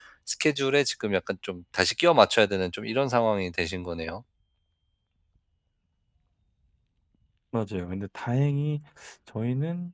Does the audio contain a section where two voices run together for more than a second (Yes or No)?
No